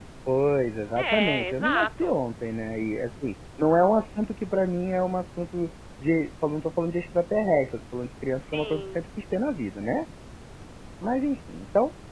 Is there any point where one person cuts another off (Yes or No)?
Yes